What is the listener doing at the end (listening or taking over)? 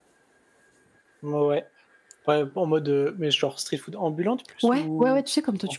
taking over